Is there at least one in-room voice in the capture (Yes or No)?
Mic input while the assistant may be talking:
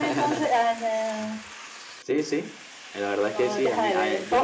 No